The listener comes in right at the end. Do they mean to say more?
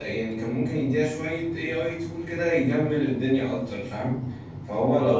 Yes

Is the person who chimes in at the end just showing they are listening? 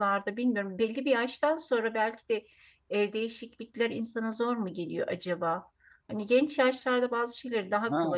No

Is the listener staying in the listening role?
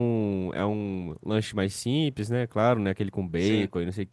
Yes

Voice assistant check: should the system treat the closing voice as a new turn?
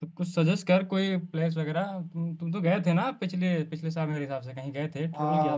Yes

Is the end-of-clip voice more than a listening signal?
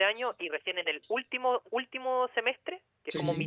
No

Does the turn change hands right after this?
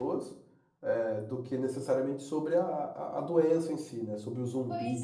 Yes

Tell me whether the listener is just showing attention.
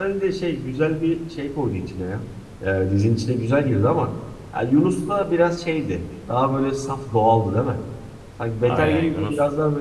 Yes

